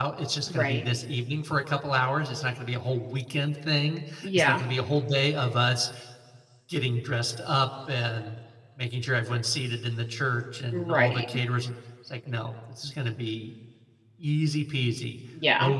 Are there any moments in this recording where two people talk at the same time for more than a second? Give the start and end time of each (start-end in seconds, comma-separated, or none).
none